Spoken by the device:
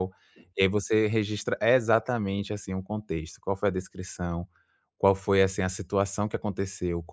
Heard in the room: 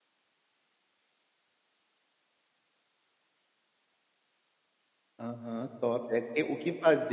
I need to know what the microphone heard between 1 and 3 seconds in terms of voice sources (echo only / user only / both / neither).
neither